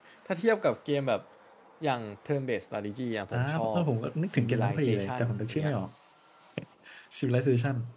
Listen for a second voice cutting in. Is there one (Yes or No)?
Yes